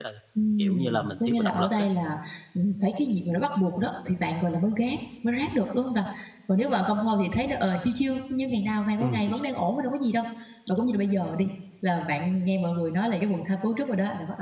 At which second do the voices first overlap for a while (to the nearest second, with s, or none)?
1 s